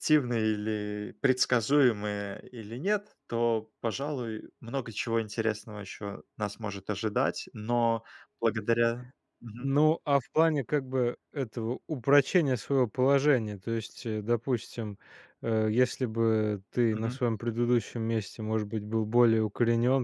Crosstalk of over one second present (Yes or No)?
No